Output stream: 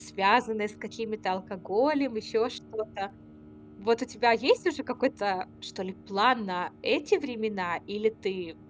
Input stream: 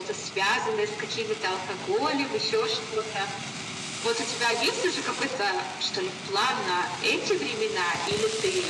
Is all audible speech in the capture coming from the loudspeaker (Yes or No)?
Yes